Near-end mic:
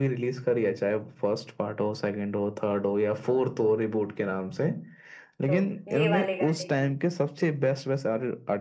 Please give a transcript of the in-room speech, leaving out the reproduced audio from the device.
तो ये वाले गाने की

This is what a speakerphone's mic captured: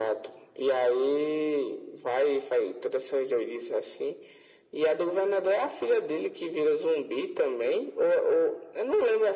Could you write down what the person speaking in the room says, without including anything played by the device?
none

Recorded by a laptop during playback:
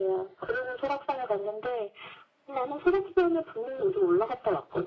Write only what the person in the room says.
none

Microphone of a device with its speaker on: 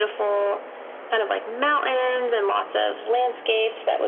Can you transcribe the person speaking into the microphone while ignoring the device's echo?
none

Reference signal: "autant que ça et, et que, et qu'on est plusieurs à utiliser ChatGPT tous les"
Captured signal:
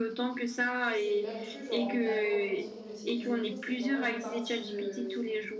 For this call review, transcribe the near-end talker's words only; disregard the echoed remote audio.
que c'est même plus genre en blaguant qu'on dit qu'on l'utilise et tout, c'est vraiment une partie de,

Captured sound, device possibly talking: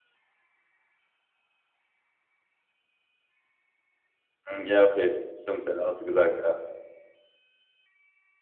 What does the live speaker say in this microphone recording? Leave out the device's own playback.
Mhm. Ja, okay, stimmt, ja, hast du gesagt, ja.

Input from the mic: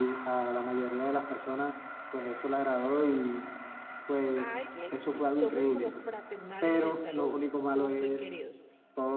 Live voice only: a alguien, somos como fraternales en el saludo, somos muy queridos.

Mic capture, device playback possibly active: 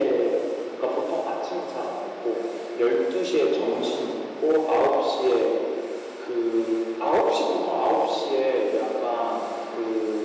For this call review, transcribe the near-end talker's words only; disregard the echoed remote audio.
none

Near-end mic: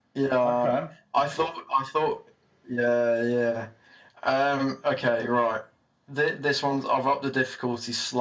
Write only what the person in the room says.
Okay.

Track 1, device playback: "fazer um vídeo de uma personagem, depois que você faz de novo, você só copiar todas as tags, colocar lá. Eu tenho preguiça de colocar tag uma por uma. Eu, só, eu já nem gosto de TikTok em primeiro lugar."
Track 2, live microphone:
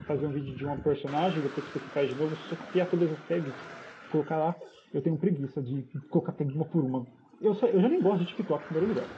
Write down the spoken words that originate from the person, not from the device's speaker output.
none

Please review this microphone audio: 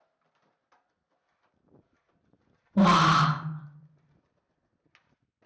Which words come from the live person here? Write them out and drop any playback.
哇

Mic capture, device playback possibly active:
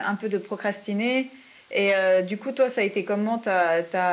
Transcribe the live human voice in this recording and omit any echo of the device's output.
none

